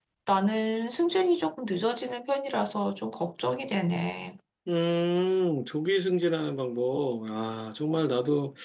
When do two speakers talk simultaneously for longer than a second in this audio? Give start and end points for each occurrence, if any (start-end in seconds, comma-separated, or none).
none